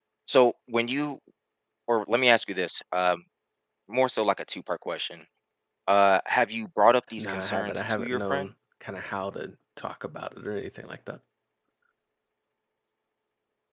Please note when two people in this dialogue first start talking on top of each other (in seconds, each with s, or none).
7.2 s